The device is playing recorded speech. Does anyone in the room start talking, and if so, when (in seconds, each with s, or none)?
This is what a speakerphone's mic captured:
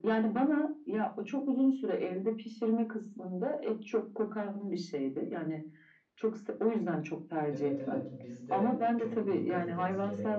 7.5 s